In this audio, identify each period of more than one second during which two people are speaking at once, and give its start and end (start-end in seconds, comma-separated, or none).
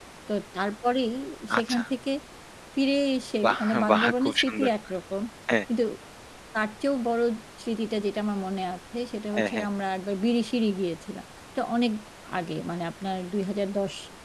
3.4-4.7